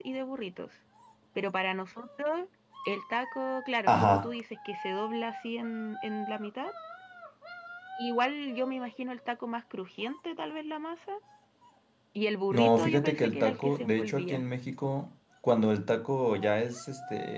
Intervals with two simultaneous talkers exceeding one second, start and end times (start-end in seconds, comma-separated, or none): 12.5-14.5